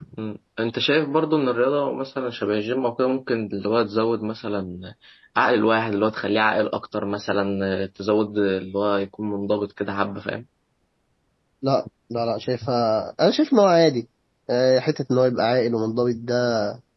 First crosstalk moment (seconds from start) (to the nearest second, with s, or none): none